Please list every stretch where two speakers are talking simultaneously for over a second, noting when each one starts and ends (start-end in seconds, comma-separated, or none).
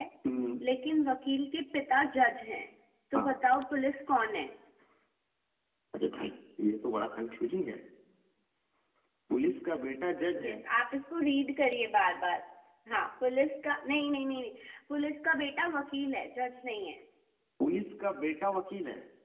none